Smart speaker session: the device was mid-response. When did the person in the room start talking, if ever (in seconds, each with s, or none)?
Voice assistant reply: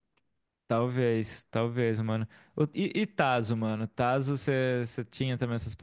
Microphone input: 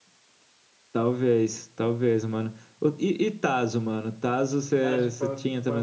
4.8 s